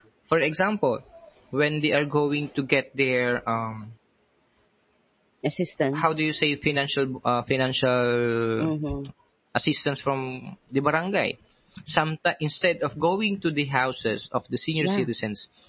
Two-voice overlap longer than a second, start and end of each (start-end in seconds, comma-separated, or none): none